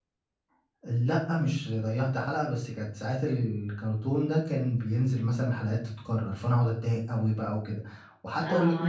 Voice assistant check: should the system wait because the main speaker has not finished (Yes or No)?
No